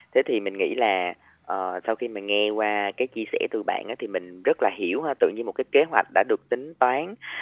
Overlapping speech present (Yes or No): No